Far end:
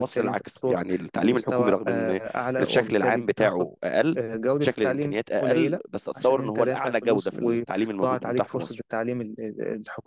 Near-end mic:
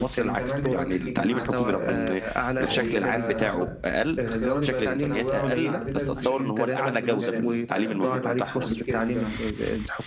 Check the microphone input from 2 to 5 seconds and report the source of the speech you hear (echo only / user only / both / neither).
both